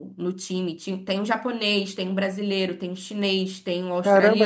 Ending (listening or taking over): taking over